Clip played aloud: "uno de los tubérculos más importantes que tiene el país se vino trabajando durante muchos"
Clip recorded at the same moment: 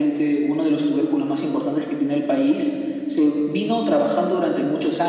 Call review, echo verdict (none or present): present